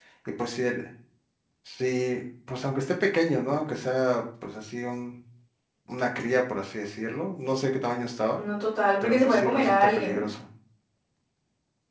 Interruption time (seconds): 9.0 s

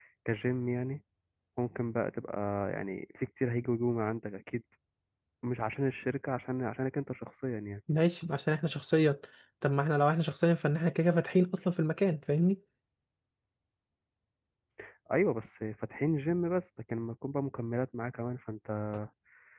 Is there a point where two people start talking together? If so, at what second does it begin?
none

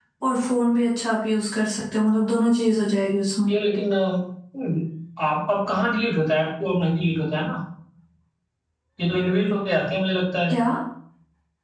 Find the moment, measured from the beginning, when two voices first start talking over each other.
none

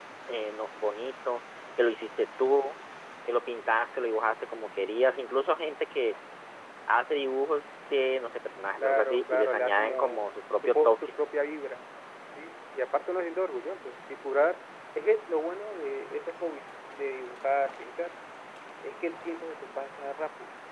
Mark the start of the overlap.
8.8 s

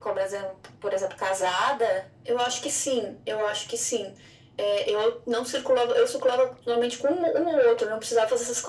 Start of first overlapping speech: none

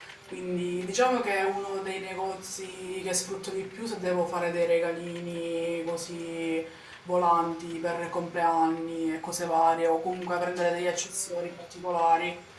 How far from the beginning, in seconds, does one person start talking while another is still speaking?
none

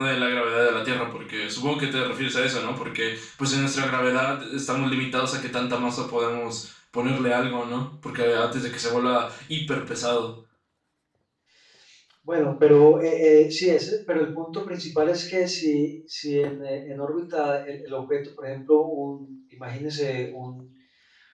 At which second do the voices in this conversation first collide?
none

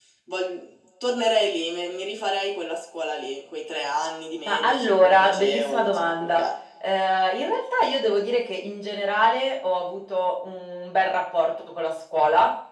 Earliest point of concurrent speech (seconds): 4.5 s

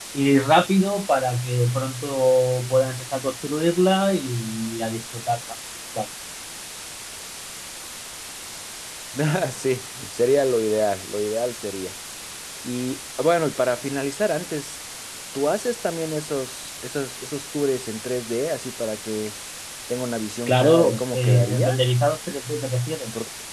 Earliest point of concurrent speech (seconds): 20.5 s

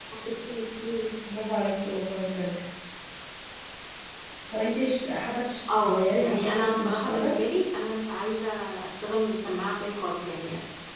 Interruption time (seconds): 5.7 s

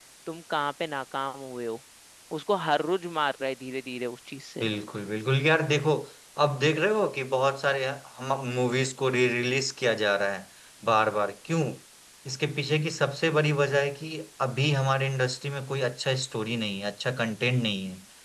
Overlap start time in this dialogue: none

